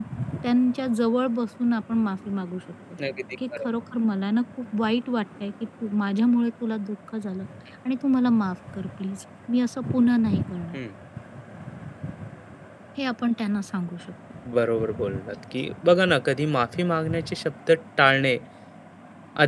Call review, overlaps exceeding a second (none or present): none